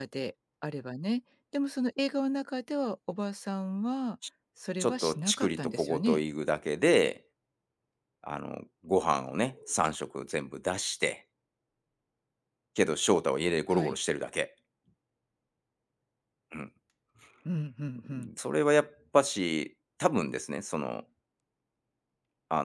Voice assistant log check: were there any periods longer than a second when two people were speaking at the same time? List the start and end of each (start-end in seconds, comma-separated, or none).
4.8-6.2